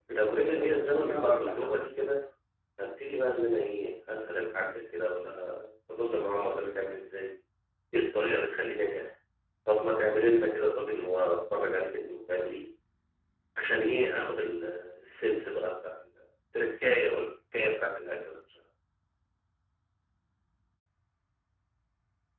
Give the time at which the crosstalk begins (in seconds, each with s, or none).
0.6 s